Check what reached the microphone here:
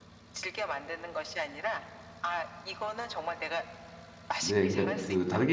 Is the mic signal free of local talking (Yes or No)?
No